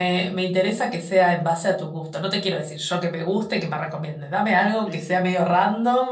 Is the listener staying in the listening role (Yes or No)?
Yes